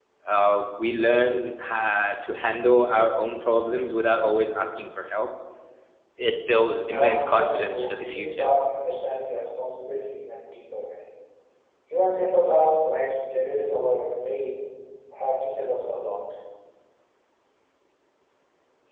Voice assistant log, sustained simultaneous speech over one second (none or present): present